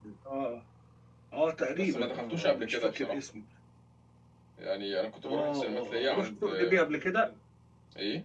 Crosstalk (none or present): present